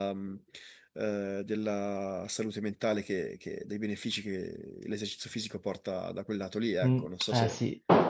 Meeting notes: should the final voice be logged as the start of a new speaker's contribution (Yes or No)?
Yes